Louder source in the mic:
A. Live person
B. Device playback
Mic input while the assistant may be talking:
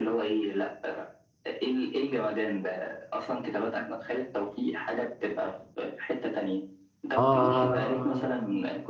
A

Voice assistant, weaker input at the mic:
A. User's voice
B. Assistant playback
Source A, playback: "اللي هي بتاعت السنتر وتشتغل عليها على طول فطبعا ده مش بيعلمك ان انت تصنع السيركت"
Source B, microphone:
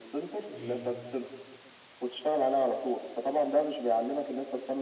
A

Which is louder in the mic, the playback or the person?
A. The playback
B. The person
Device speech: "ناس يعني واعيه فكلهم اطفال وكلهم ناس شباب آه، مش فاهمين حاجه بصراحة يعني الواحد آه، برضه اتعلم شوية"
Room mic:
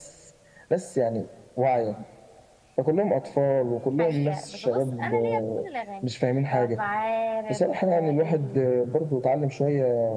A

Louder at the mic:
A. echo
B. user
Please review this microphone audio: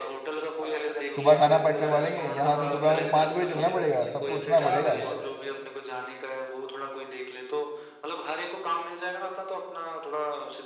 B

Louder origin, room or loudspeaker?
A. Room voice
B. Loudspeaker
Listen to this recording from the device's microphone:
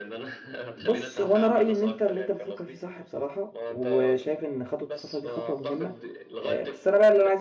A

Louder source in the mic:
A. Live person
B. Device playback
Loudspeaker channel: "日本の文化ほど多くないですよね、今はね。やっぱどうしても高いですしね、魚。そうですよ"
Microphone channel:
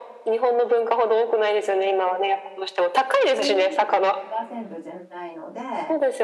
B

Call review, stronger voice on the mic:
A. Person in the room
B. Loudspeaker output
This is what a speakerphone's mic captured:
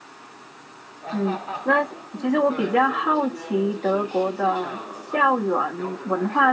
A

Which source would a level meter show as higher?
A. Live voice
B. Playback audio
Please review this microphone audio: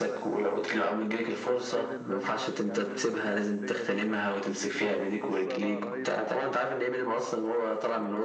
B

